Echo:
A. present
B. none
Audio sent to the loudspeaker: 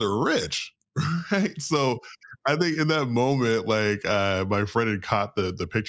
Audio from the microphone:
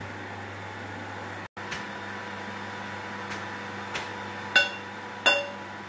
B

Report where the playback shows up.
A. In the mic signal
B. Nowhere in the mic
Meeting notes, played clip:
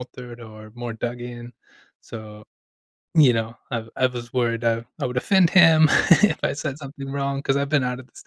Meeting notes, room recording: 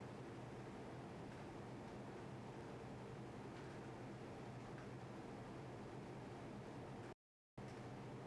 B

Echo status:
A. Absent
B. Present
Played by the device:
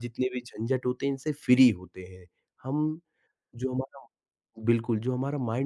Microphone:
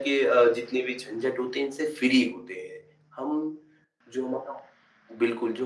B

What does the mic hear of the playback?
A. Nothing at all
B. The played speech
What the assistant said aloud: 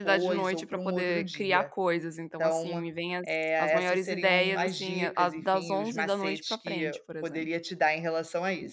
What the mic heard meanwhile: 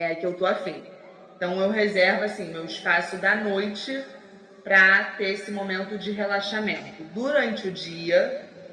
A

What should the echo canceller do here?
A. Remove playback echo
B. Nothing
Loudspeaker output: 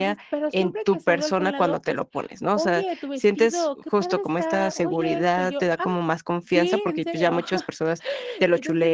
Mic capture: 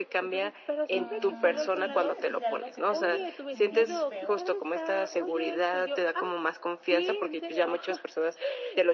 A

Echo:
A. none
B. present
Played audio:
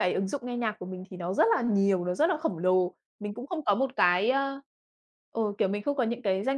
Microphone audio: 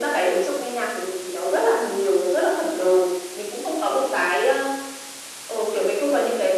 B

